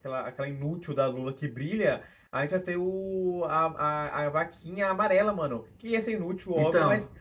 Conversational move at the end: listening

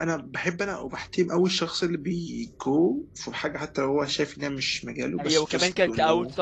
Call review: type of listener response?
taking over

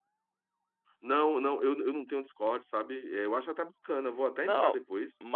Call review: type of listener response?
taking over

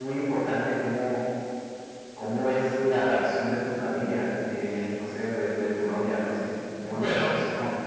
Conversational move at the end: taking over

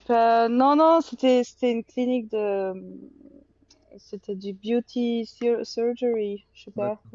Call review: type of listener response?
listening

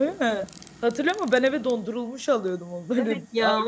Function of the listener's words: taking over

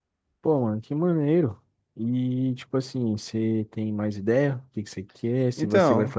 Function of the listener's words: listening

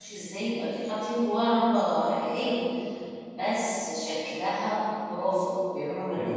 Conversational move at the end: taking over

